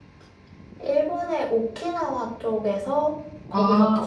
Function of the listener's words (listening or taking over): listening